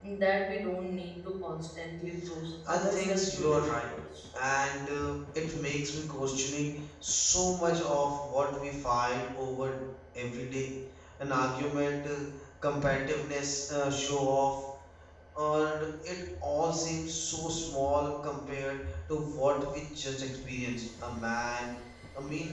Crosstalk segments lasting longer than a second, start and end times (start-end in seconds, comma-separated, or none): 2.7-3.9